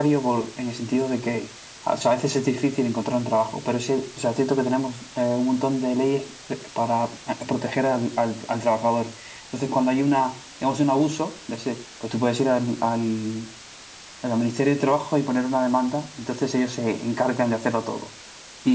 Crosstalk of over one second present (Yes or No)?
No